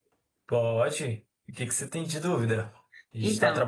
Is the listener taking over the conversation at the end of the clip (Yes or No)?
No